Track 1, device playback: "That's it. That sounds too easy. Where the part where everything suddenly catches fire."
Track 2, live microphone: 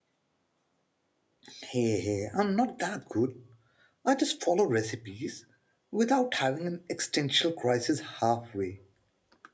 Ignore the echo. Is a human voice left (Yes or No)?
Yes